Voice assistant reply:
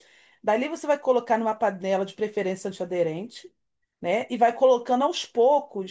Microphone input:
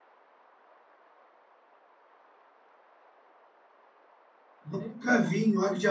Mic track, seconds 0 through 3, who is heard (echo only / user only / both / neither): neither